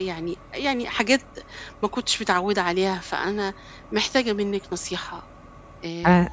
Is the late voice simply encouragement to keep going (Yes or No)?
No